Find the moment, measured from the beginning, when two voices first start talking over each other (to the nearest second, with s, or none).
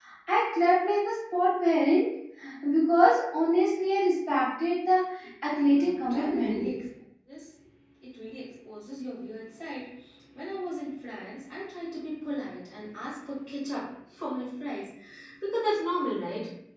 5 s